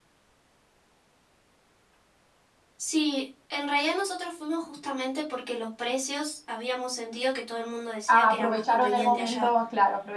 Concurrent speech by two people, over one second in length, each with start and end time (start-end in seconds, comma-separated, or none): 8.1-9.5